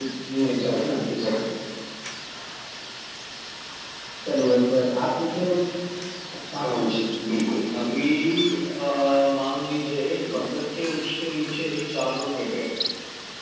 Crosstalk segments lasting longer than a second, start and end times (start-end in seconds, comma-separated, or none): none